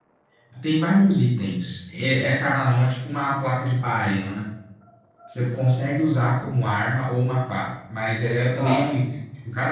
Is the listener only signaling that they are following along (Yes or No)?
Yes